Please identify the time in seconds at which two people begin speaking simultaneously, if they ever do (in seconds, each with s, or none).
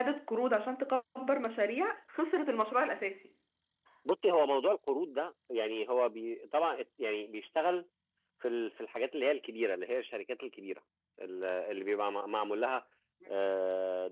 none